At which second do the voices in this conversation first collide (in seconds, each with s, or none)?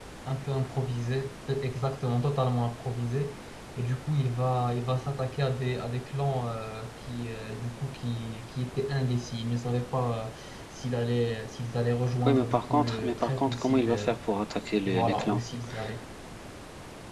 12.2 s